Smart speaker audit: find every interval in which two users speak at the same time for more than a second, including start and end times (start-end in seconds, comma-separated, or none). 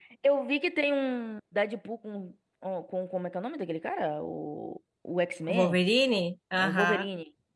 none